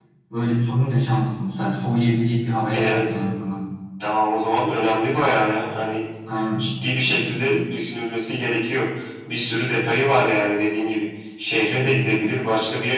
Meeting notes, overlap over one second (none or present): none